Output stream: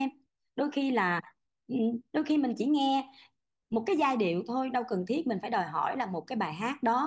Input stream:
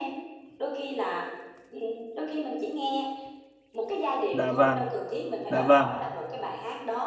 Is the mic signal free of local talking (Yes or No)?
No